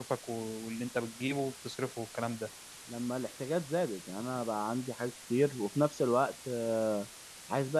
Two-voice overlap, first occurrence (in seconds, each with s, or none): none